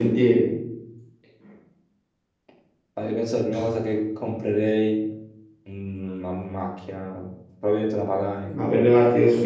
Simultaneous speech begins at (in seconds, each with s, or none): none